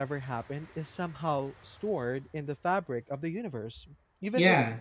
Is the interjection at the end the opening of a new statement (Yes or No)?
Yes